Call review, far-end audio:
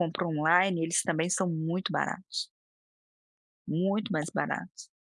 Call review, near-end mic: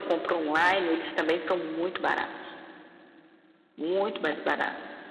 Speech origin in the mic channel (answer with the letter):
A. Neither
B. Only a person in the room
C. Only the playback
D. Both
C